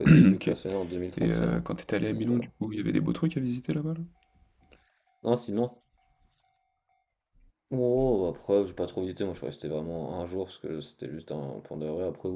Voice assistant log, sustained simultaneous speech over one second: none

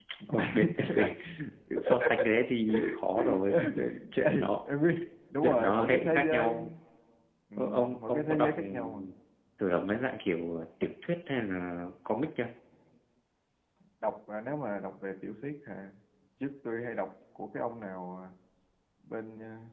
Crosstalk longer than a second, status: present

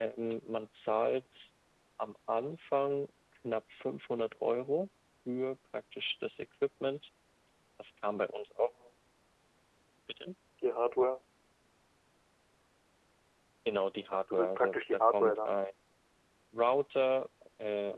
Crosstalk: present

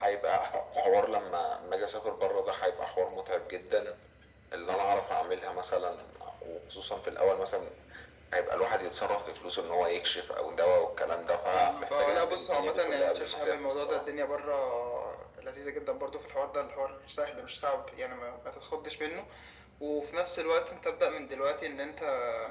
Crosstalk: present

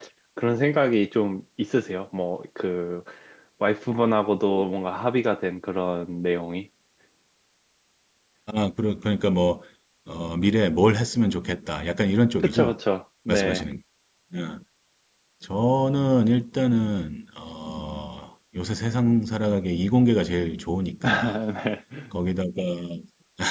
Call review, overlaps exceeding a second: none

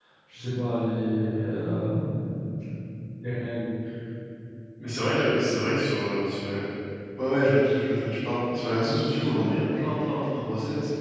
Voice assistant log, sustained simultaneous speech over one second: none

